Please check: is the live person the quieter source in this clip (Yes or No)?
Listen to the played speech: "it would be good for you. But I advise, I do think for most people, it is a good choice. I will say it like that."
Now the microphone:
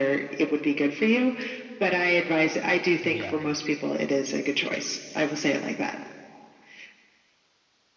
Yes